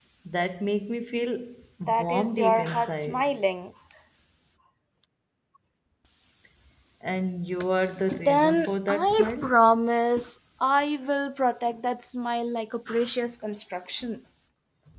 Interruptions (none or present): present